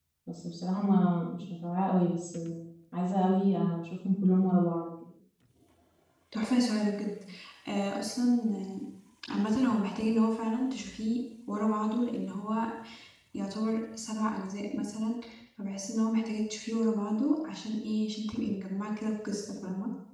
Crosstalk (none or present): none